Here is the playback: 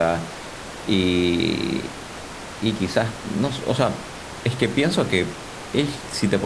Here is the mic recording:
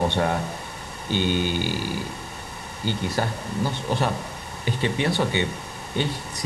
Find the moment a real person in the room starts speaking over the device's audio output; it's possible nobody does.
none

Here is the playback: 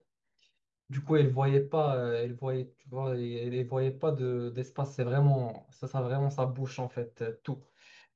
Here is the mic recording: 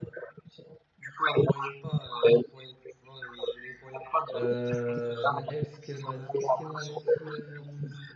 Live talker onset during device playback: 4.3 s

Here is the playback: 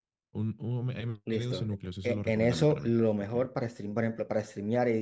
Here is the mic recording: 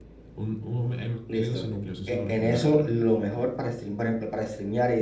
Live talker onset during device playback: none

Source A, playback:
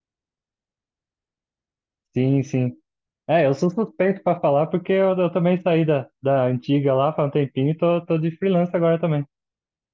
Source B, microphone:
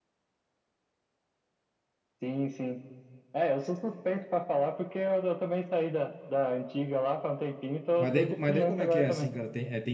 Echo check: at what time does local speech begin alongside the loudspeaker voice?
8.0 s

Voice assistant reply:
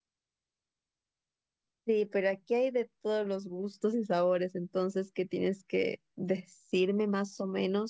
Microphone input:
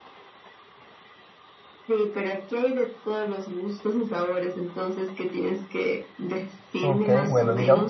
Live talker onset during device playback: 6.8 s

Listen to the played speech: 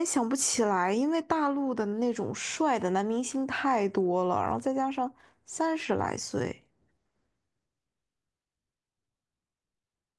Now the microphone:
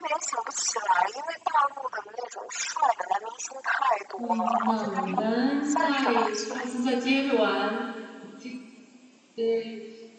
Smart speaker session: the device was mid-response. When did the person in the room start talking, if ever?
4.2 s

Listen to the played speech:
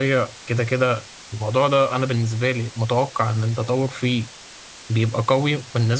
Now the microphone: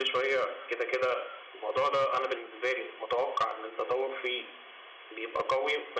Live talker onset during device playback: none

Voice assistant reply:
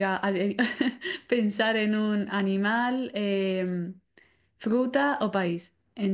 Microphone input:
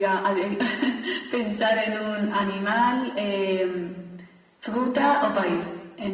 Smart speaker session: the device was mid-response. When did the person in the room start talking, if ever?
none

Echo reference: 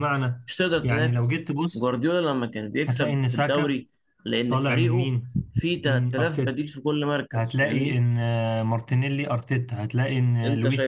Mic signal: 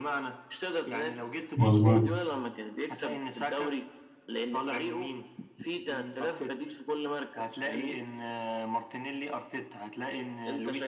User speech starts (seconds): 1.6 s

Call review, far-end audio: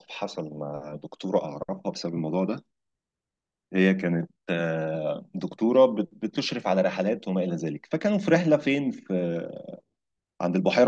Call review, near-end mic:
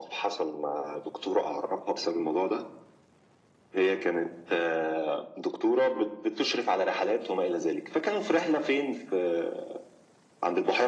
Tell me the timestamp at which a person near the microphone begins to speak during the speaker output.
none

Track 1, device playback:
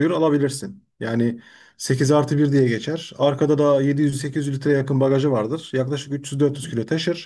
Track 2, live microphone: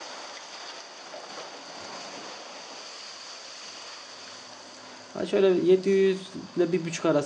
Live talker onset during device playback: 5.1 s

